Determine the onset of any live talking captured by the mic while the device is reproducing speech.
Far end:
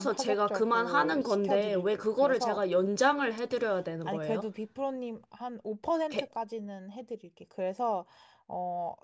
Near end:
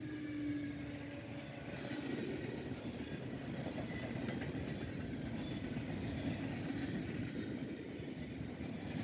none

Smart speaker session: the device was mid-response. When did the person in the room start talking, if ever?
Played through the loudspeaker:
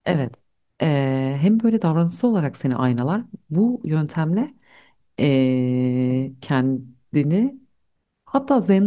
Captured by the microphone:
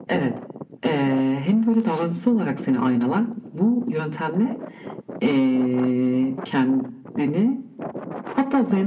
none

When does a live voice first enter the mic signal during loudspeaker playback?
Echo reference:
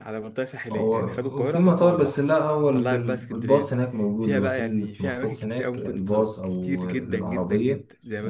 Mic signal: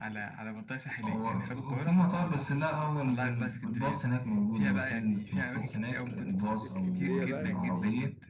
6.6 s

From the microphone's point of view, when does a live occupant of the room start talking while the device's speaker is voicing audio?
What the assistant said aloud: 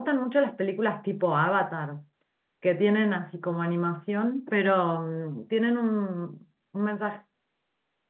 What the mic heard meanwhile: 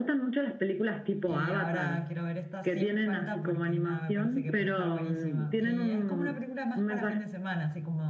1.2 s

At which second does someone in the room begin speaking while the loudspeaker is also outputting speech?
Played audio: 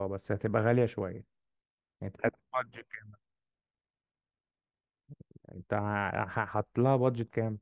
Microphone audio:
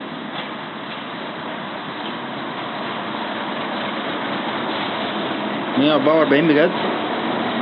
5.8 s

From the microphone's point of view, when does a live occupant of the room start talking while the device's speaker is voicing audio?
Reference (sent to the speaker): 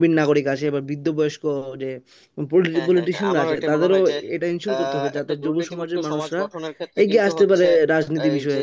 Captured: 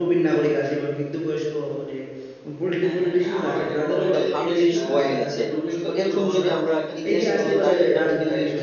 4.0 s

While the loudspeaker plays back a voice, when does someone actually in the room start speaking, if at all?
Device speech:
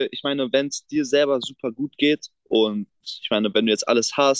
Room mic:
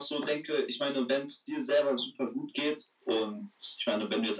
none

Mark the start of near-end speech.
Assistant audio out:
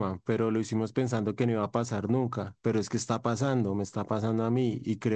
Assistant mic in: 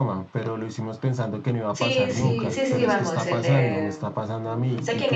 1.7 s

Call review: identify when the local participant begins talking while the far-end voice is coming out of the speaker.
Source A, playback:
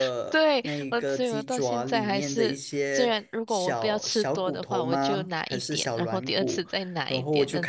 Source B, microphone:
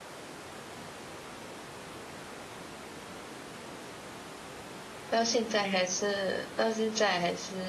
5.1 s

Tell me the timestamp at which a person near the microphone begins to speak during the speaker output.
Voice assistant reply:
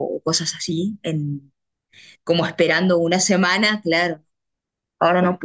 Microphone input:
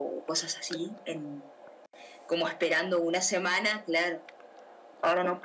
none

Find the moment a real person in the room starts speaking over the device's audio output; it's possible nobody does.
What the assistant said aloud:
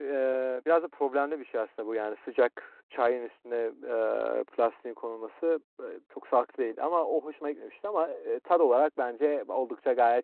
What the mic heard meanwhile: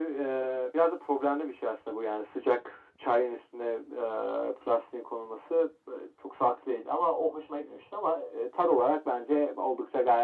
none

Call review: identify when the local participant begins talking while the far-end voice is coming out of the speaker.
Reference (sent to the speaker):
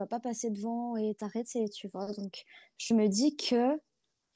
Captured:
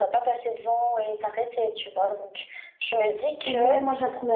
3.4 s

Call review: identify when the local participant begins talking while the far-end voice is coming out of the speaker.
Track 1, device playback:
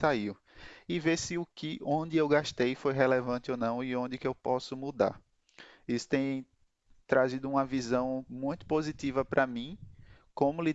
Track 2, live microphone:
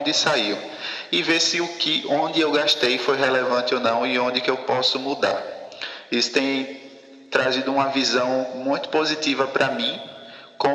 none

